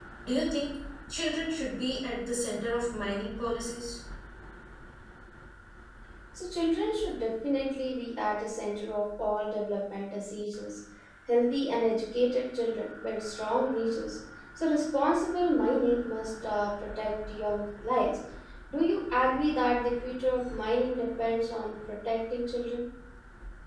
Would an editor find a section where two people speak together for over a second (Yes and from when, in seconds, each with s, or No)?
No